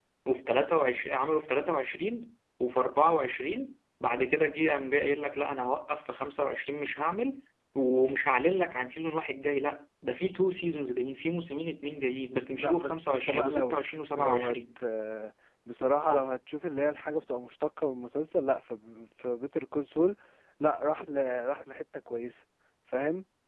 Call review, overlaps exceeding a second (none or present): present